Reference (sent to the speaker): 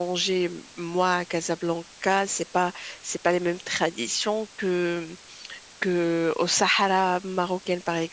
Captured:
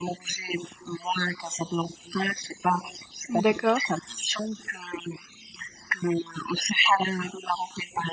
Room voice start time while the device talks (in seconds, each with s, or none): 3.4 s